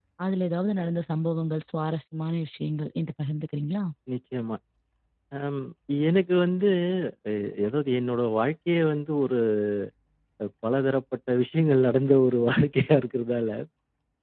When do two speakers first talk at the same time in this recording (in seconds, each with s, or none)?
none